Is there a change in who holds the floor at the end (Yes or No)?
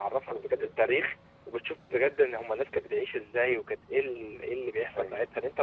No